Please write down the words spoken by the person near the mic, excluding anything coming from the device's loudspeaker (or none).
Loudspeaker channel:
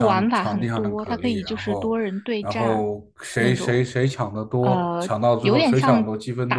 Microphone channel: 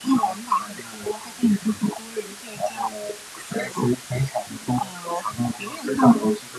none